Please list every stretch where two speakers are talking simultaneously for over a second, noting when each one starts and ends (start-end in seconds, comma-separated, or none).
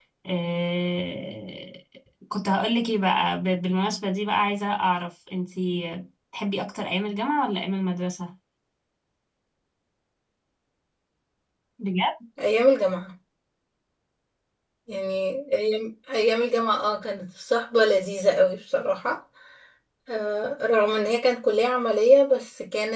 none